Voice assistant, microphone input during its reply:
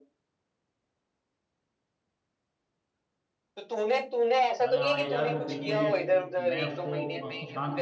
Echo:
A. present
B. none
A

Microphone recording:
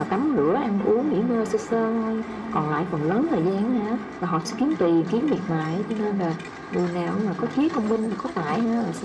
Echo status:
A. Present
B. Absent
A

